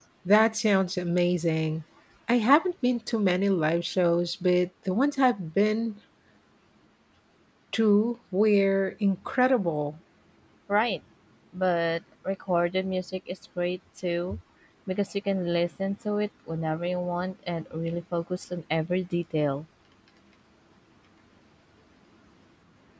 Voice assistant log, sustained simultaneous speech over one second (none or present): none